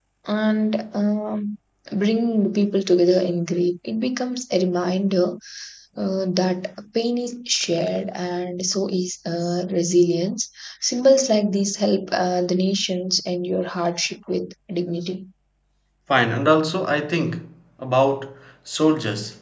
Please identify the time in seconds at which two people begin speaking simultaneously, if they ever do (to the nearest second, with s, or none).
none